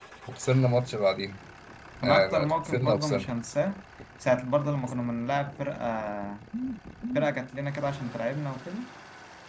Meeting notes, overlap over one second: present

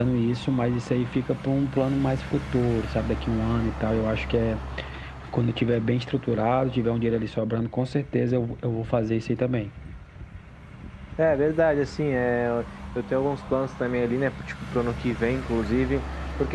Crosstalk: none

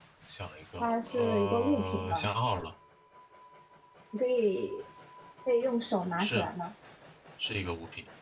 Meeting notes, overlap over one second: present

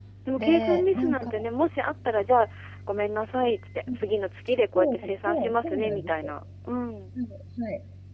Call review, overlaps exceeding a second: present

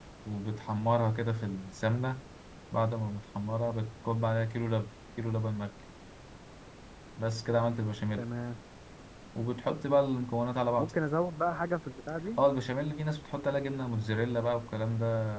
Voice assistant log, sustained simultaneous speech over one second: none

